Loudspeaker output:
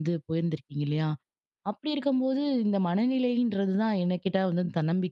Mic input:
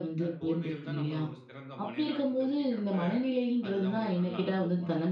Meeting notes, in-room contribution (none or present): present